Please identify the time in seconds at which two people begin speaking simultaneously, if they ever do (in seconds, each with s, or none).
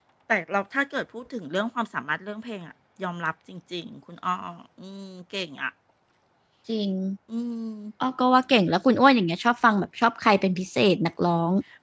none